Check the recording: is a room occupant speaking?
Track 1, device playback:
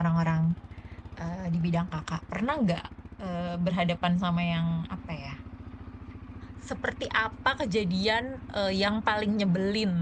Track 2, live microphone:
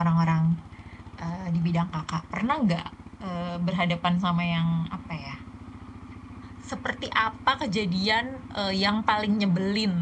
No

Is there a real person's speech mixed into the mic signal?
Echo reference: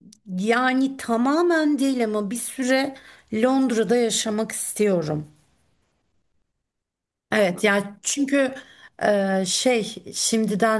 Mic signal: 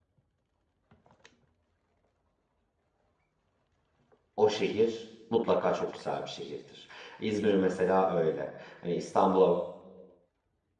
Yes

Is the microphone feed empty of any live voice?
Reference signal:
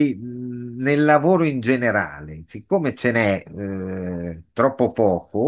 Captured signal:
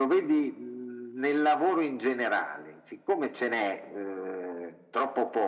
Yes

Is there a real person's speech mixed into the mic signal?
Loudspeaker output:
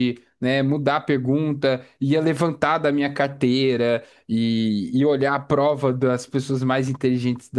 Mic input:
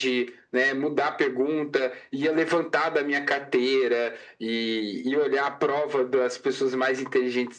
No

